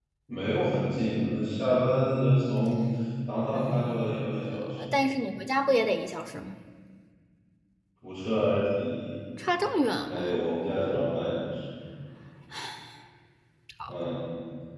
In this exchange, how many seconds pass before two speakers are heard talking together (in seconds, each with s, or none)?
3.5 s